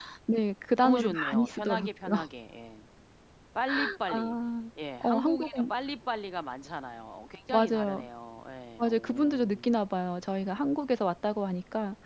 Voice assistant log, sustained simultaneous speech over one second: present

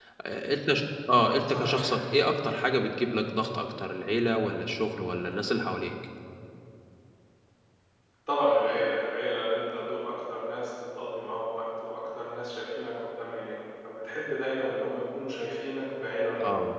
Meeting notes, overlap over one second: none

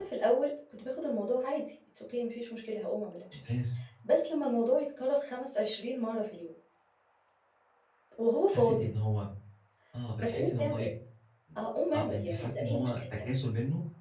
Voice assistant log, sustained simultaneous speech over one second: present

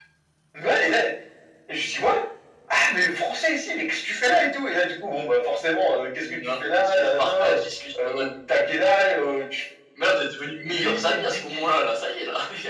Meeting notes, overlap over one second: present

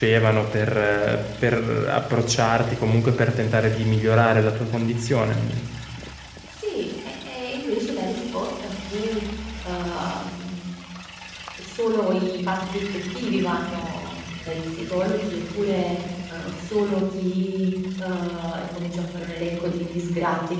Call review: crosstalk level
none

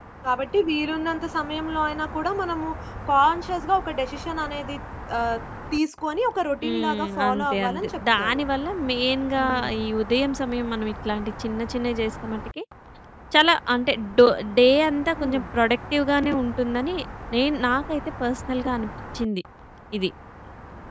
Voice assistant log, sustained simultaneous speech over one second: present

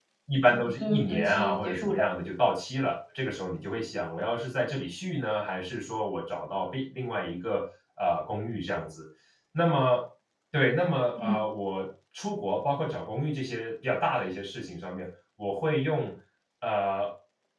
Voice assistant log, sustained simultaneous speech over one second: present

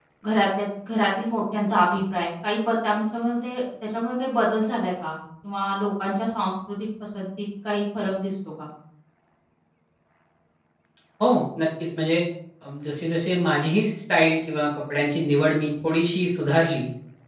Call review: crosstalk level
none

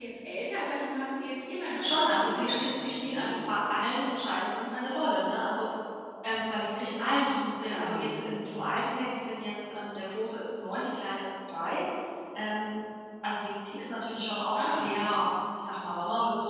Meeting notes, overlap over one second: present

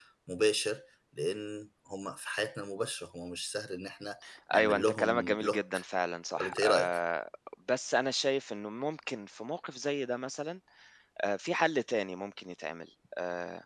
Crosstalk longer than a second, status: present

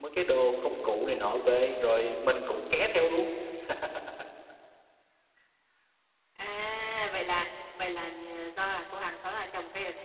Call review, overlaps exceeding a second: none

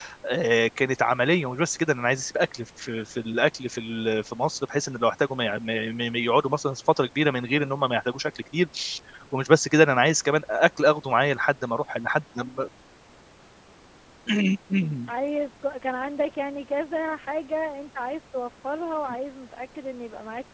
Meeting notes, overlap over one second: none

